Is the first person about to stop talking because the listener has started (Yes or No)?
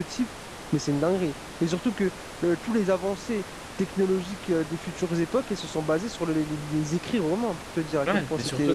Yes